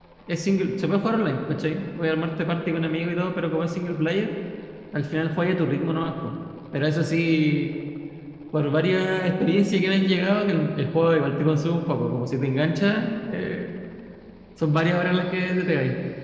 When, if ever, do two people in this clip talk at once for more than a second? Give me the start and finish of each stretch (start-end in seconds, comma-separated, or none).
none